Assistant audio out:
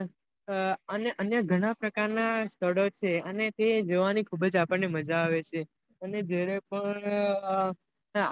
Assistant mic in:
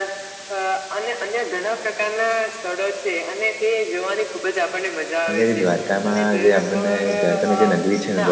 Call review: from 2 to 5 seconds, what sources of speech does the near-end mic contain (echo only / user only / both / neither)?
echo only